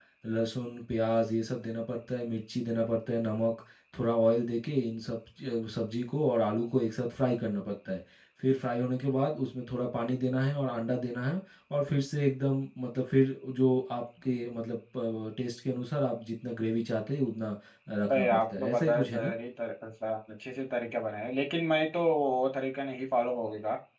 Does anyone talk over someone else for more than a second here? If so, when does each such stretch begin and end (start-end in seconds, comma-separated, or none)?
18.1-19.3